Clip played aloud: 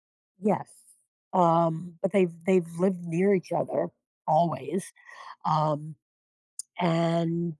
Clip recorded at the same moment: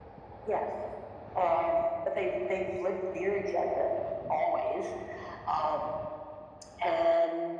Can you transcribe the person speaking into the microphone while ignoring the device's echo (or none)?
none